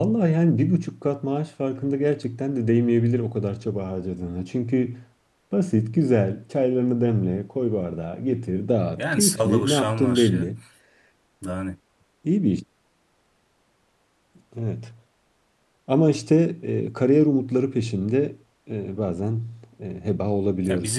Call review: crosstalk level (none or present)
present